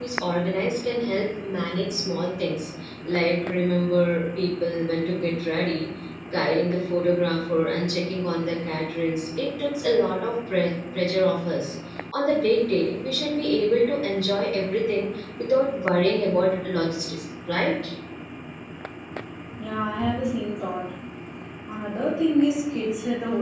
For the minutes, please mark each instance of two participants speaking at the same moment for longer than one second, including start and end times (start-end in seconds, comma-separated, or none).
none